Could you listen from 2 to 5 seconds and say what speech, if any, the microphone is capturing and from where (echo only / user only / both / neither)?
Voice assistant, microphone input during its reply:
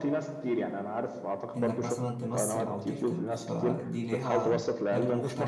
both